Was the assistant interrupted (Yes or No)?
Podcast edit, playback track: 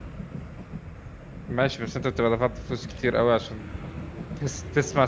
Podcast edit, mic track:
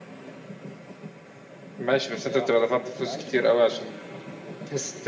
Yes